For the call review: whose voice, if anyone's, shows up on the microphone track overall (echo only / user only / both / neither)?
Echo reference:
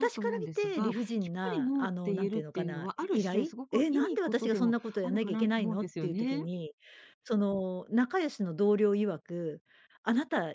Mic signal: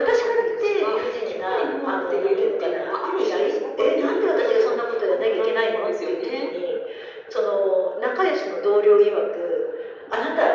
echo only